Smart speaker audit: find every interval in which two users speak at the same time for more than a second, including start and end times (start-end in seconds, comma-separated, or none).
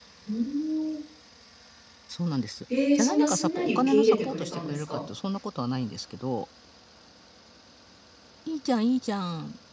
2.9-5.0